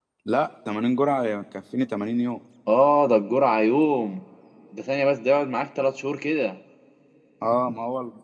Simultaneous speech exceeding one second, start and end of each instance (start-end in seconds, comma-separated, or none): none